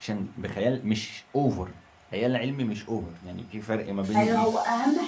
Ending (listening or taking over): taking over